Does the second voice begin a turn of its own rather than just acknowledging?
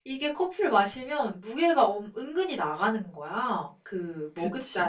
No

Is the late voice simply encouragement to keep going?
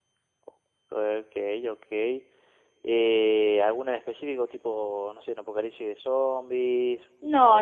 No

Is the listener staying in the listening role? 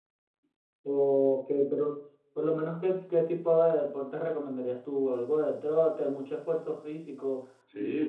No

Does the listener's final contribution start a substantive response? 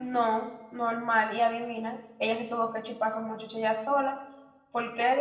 Yes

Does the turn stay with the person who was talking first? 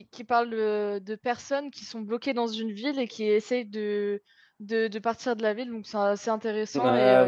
No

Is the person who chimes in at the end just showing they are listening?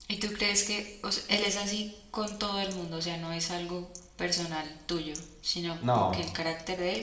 Yes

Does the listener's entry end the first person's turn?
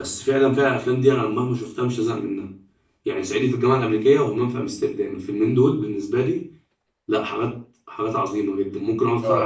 Yes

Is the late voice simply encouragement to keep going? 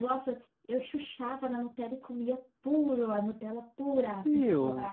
No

